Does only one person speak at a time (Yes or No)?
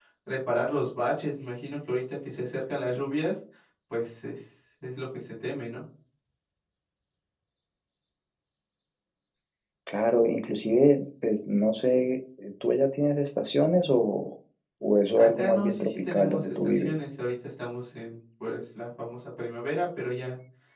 No